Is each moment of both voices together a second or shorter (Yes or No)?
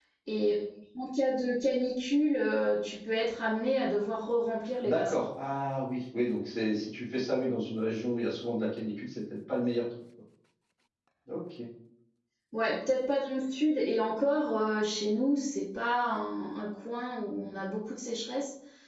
Yes